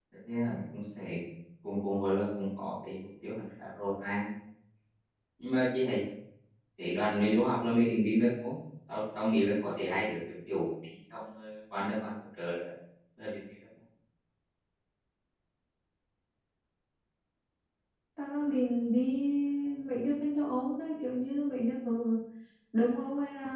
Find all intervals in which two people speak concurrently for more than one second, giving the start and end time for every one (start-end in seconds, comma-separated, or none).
none